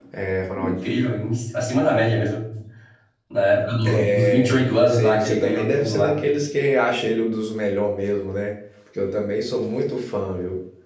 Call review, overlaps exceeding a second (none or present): present